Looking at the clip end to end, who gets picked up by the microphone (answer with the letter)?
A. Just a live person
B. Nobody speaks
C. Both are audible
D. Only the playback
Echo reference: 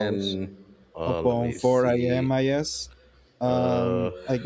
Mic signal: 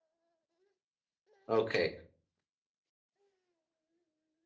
A